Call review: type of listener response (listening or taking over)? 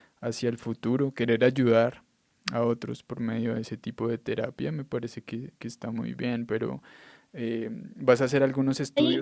listening